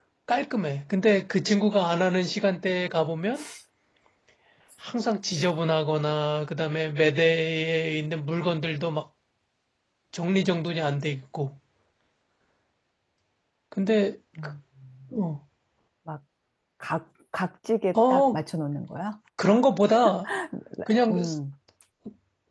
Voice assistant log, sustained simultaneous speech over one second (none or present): none